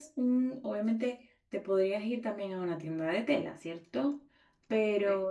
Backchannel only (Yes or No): Yes